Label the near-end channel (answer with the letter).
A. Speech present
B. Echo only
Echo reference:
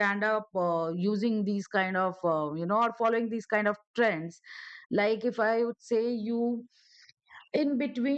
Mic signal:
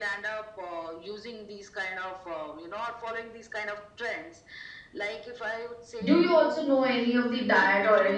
A